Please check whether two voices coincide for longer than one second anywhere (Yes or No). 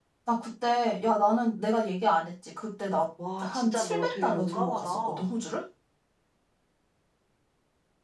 Yes